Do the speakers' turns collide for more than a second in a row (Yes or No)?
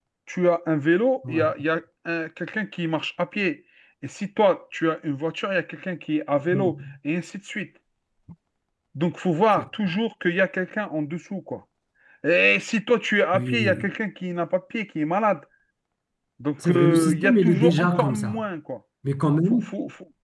Yes